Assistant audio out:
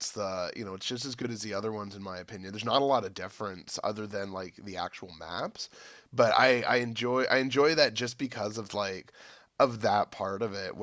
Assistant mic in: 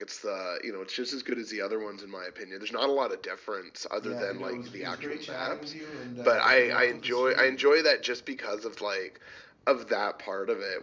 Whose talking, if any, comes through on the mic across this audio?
both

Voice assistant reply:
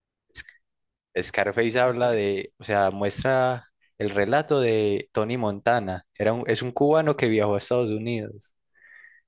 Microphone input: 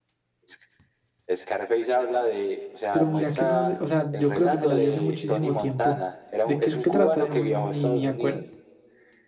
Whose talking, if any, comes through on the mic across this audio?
both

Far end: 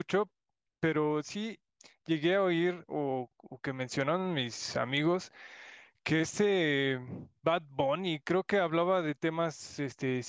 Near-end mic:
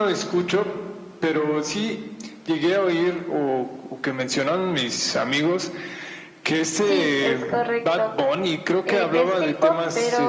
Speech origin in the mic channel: both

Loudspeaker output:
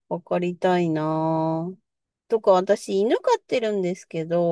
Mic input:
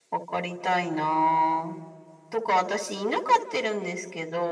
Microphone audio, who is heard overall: echo only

